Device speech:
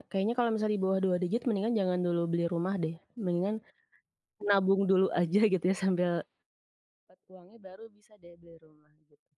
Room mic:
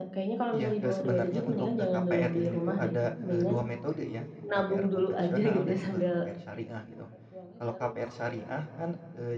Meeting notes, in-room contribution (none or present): present